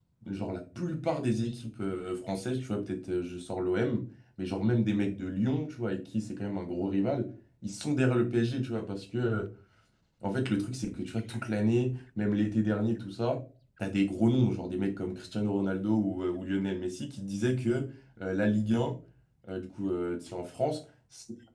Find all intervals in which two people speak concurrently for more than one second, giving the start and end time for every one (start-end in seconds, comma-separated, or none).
none